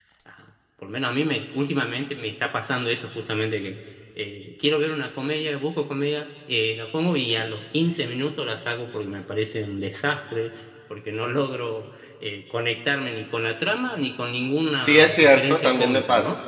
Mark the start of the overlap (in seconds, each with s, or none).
14.8 s